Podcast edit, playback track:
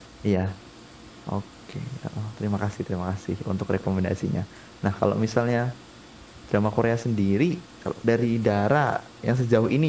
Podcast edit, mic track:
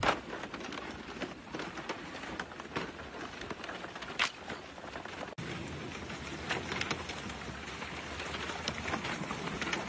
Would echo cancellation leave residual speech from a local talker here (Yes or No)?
No